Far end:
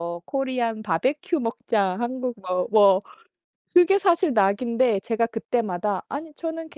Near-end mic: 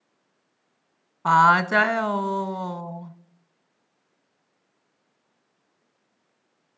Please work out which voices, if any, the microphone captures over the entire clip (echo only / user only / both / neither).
user only